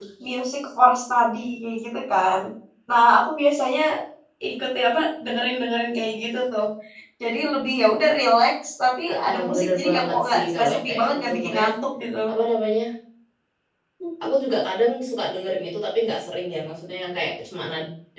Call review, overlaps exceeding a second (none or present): present